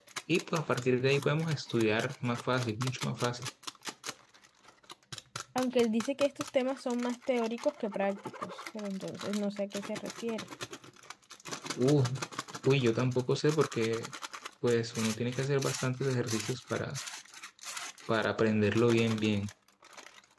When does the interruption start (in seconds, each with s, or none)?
none